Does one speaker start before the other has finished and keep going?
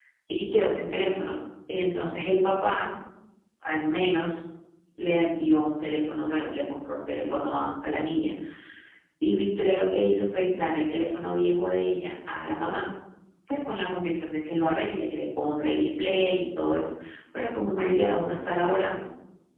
No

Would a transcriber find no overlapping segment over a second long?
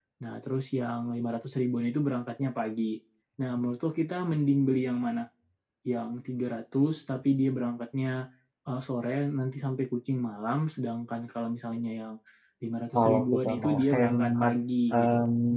No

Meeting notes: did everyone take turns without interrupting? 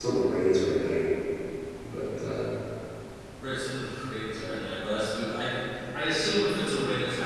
Yes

